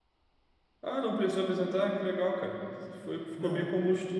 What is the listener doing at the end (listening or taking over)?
listening